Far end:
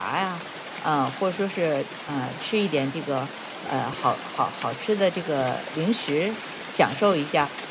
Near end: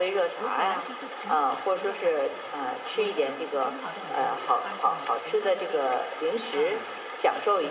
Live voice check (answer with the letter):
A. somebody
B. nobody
A